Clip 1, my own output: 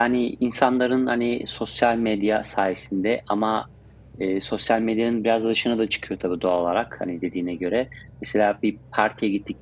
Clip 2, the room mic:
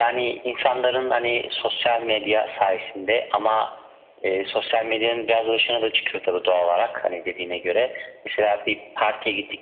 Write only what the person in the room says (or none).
none